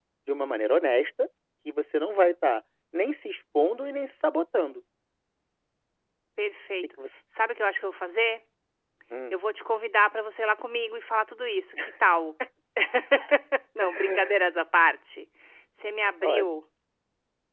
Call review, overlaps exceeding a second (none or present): none